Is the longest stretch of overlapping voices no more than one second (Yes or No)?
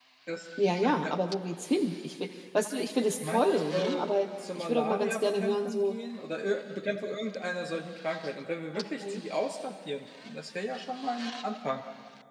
No